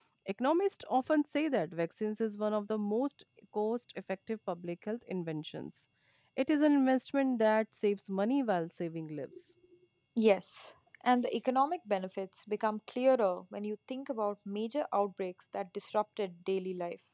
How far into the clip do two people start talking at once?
none

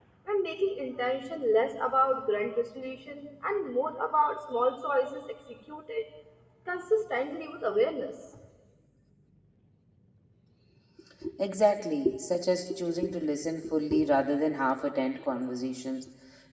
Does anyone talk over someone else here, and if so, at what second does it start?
none

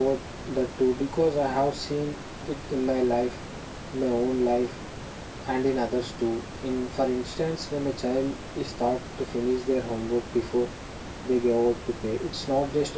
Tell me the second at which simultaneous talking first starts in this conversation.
none

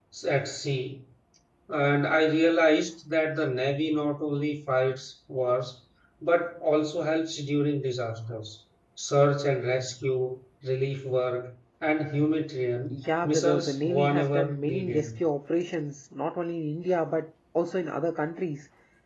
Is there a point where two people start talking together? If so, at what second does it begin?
12.9 s

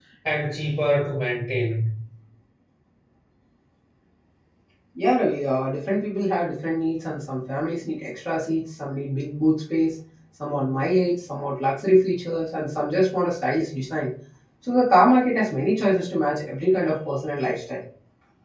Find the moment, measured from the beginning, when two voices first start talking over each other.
none

